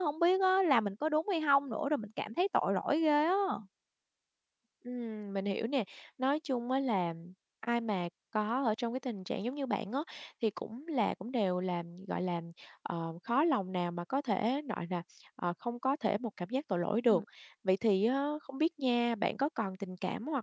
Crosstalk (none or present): none